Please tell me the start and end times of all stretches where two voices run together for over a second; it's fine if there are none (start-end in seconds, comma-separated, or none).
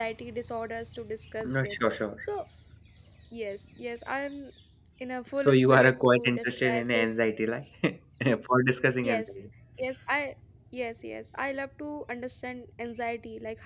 5.4-7.2